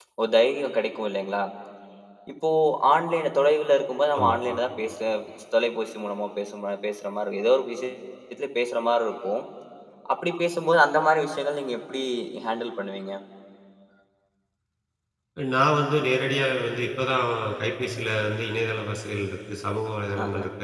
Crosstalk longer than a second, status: none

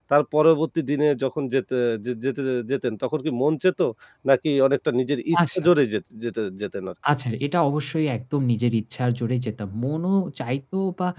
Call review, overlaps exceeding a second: none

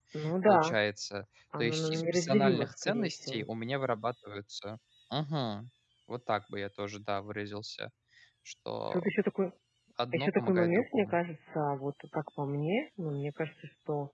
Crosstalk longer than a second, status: present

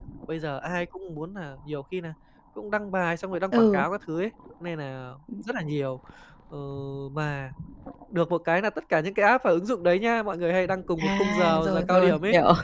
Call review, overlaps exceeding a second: present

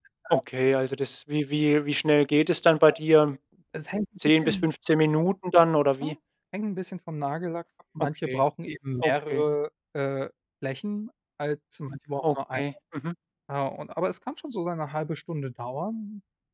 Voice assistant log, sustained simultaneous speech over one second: none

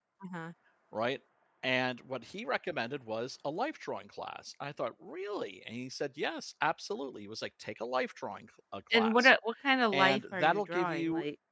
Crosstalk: present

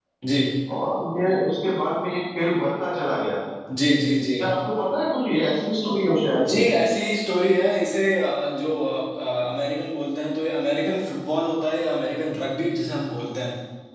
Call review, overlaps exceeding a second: none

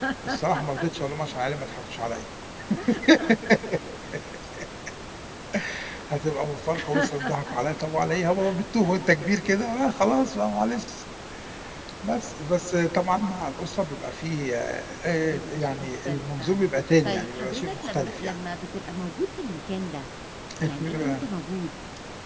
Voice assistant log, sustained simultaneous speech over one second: present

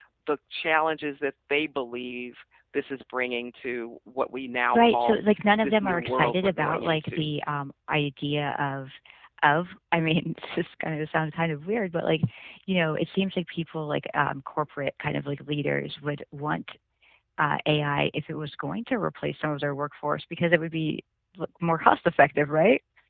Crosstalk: present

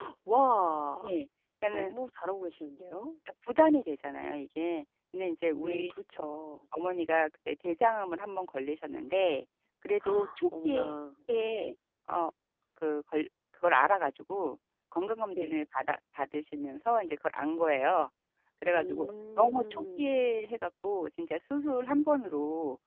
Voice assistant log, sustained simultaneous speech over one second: present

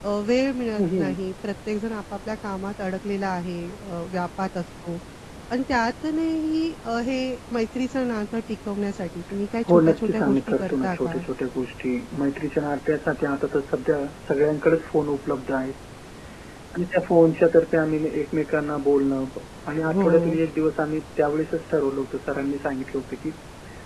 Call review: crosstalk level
present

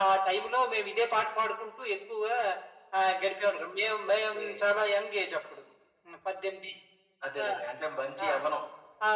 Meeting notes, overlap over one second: none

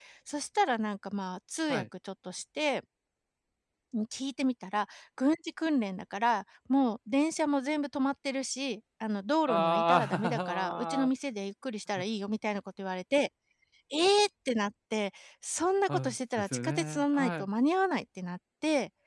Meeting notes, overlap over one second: present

